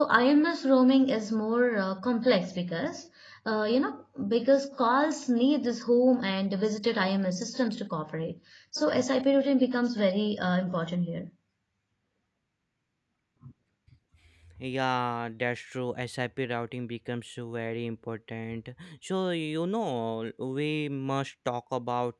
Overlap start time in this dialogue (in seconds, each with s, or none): none